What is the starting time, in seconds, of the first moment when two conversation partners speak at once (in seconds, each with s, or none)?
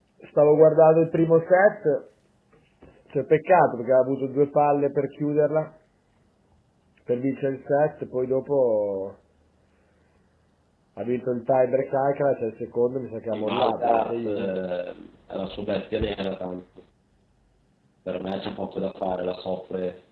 13.3 s